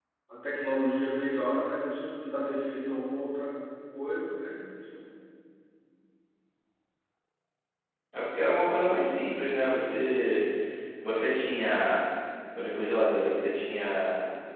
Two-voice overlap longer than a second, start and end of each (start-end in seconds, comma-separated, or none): none